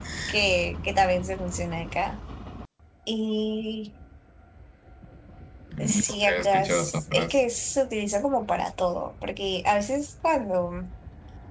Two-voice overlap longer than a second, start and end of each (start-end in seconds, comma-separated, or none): 5.8-7.4